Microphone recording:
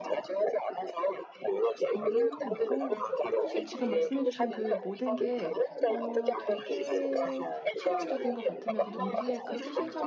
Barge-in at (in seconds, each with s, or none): 1.9 s